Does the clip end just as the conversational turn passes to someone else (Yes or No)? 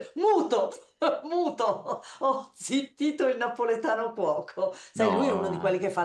No